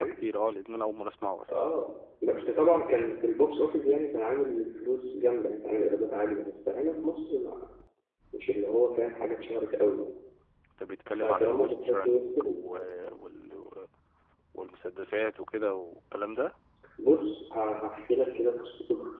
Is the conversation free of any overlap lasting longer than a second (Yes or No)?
No